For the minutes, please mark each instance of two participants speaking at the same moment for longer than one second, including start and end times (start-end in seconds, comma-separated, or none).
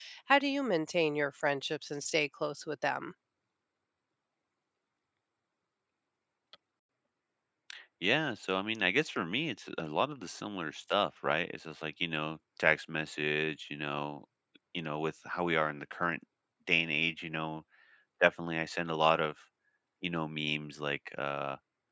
none